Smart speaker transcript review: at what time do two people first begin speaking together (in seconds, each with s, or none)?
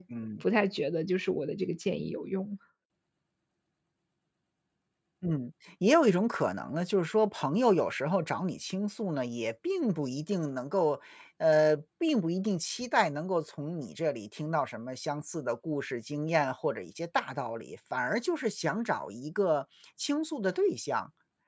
none